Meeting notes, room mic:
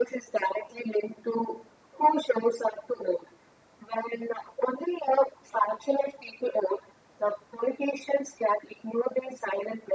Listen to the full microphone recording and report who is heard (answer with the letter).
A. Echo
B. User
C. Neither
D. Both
A